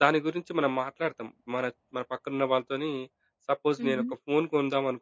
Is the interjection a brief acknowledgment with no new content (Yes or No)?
Yes